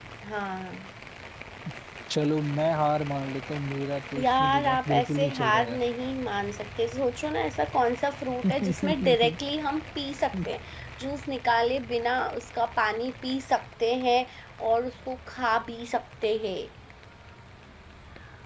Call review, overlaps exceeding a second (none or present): present